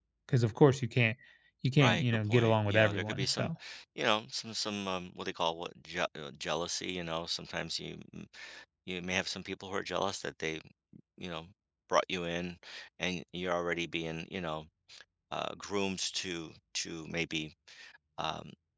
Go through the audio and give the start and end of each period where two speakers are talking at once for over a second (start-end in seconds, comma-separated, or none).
1.8-3.5